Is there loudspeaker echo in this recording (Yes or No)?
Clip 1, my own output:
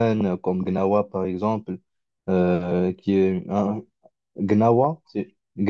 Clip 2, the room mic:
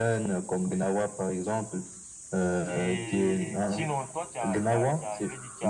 Yes